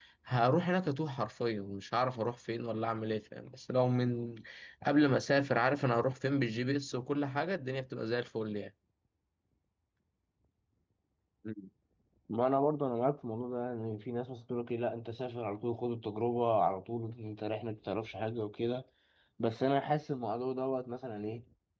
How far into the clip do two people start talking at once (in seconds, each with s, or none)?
none